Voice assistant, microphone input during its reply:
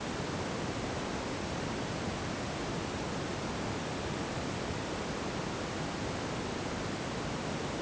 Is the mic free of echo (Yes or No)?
Yes